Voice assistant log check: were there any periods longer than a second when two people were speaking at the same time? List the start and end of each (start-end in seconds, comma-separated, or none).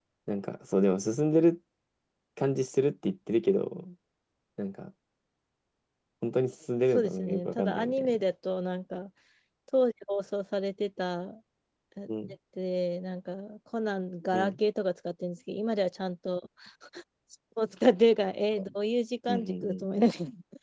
6.9-8.2